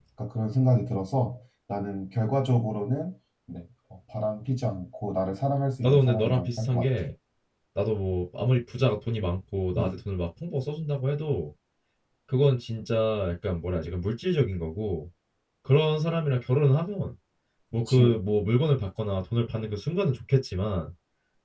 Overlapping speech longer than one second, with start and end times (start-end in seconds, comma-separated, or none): 5.8-7.0